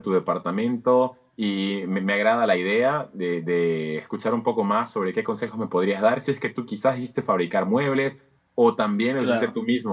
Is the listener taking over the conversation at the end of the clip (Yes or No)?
No